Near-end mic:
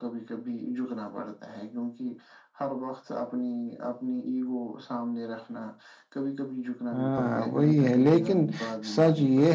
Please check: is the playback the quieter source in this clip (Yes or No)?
Yes